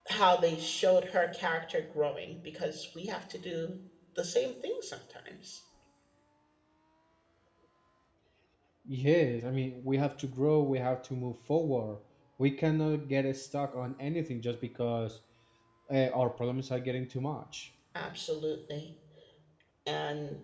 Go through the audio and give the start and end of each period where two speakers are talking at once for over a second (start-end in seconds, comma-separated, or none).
none